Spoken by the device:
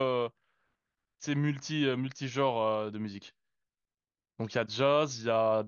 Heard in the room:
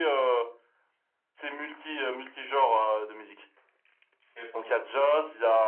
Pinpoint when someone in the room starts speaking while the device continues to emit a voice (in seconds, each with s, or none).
4.4 s